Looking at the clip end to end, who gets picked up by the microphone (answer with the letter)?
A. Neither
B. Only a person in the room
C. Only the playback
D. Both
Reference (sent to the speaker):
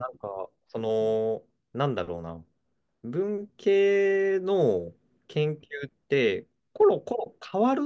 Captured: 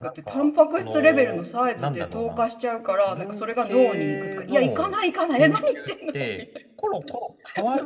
D